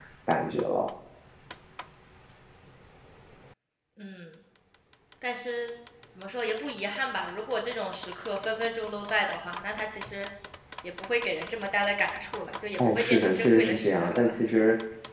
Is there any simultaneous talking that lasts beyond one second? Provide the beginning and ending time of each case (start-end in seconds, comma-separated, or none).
12.9-14.3